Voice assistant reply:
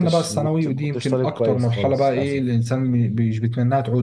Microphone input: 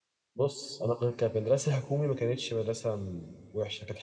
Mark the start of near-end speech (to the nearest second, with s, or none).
0 s